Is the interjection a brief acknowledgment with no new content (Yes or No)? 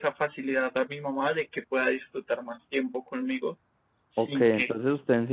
No